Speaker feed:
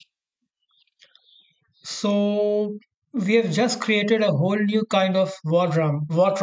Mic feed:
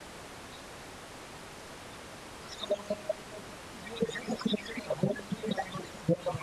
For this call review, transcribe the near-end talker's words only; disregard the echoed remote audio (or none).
none